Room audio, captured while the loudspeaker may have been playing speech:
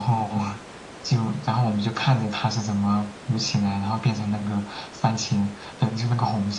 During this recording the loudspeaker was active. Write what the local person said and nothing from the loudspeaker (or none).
none